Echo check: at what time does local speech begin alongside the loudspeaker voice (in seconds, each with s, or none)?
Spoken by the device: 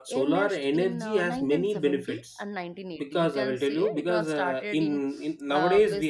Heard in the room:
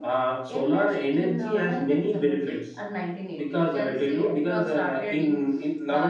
none